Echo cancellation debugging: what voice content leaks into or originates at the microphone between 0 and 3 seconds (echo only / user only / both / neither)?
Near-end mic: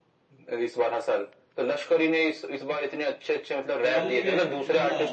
echo only